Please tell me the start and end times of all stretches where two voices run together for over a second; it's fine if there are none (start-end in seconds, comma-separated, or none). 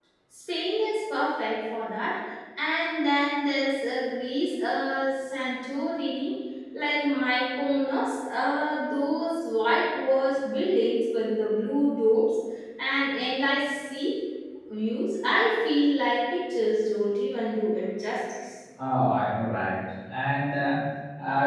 none